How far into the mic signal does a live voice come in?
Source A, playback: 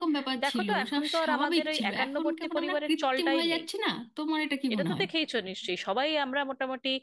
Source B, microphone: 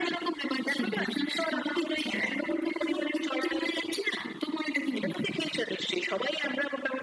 none

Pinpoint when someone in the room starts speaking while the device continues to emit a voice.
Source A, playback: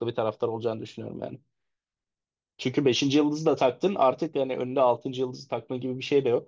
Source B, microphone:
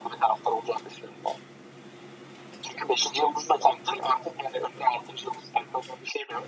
none

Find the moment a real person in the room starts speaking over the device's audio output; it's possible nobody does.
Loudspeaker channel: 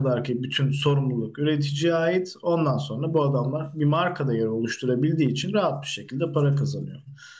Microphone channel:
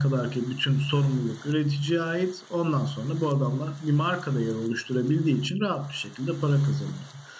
none

